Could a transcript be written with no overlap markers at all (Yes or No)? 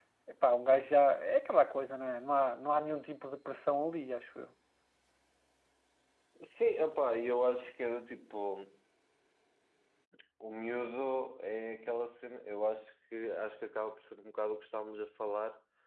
Yes